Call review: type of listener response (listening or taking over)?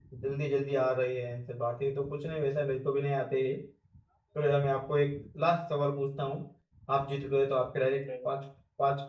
listening